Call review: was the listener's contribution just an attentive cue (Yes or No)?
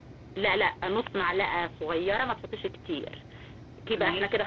Yes